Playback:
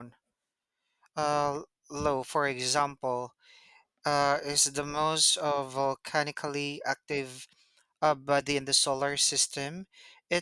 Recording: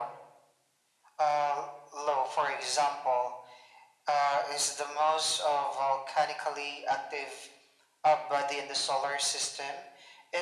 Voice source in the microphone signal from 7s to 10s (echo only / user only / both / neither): echo only